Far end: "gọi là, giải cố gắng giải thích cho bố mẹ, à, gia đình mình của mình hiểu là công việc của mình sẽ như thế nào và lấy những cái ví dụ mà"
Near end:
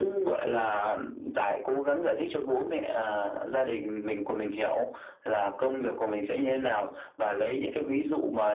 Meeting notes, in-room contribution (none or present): none